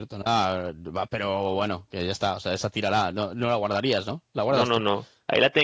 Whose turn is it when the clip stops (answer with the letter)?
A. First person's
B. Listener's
B